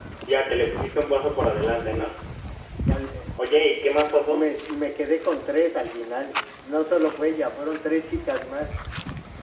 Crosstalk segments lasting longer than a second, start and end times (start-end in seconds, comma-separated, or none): none